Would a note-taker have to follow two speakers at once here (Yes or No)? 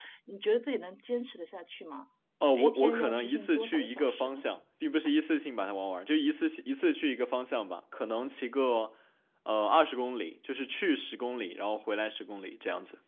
Yes